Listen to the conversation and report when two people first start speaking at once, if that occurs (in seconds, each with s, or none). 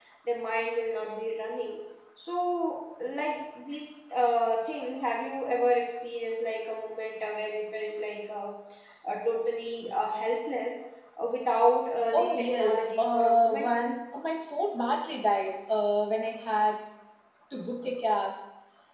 12.1 s